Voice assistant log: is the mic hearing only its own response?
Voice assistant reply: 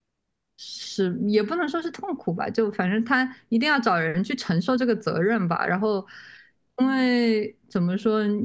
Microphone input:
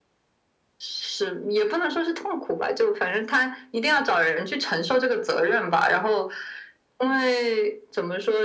Yes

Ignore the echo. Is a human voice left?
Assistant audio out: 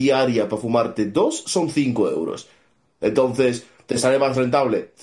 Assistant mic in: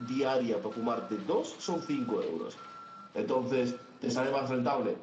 No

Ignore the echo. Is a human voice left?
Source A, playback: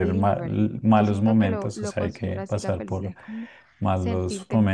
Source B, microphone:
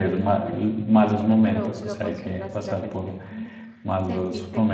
No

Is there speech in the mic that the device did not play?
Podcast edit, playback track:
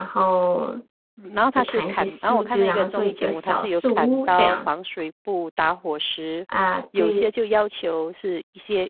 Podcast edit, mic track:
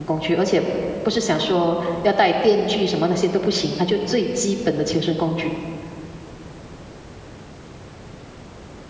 Yes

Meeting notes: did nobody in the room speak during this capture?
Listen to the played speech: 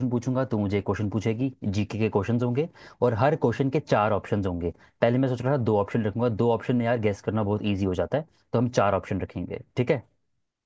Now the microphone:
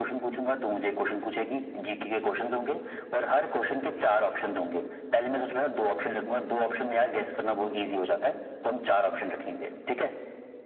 Yes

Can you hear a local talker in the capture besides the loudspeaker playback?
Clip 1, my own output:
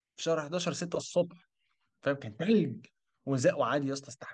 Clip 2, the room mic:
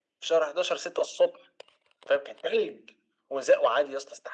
No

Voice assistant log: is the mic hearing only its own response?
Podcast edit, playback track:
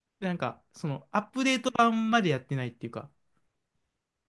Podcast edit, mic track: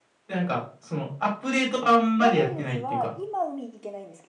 No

